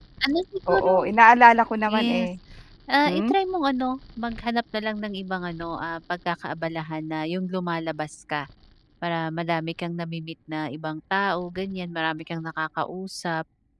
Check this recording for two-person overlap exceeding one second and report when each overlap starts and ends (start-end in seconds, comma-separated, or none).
none